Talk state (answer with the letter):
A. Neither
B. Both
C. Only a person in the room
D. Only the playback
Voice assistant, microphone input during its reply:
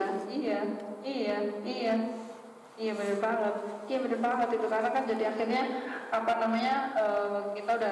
D